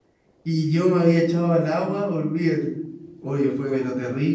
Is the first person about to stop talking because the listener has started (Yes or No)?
No